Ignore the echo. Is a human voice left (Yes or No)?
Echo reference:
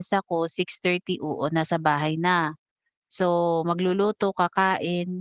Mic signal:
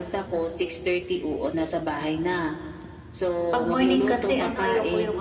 Yes